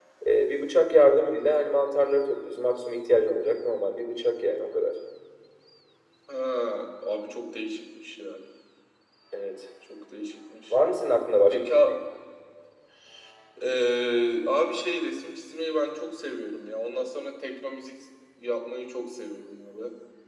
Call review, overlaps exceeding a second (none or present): none